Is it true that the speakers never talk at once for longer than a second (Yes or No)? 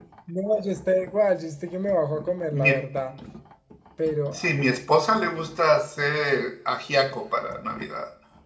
Yes